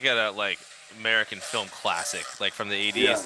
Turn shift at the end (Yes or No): No